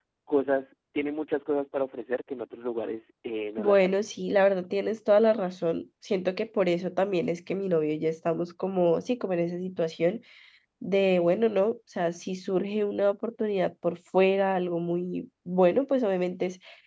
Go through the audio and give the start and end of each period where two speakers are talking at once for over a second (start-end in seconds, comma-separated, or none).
none